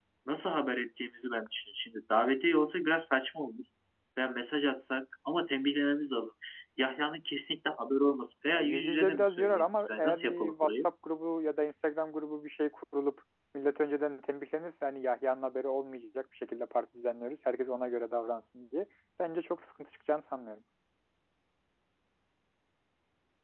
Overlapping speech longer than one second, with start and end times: 8.5-10.9

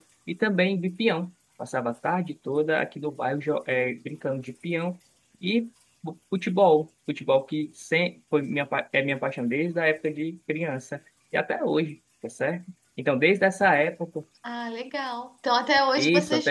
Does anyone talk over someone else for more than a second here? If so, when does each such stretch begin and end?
none

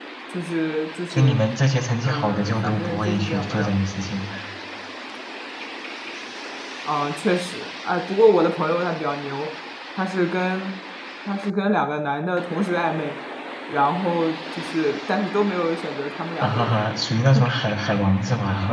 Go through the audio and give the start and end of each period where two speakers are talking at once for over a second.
2.0-3.7

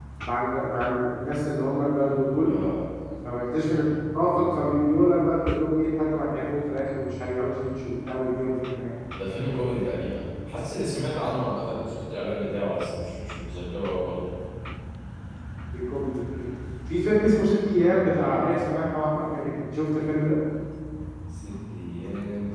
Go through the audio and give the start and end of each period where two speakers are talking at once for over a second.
none

